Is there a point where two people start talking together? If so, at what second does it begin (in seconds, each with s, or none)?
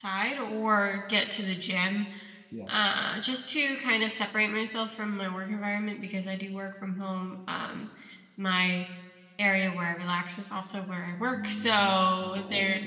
11.3 s